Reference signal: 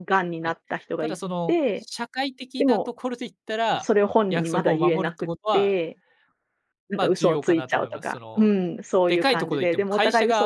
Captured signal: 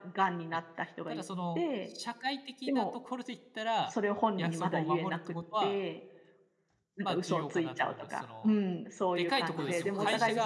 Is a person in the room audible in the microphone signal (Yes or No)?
Yes